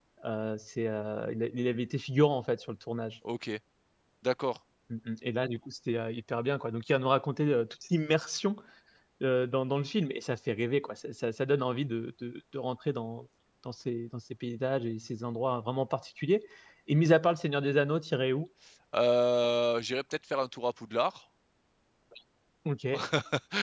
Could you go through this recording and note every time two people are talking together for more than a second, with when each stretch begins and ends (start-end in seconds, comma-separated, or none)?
none